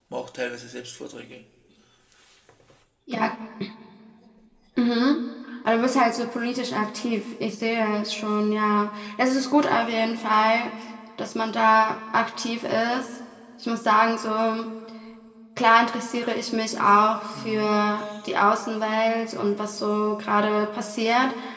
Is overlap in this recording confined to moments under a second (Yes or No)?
Yes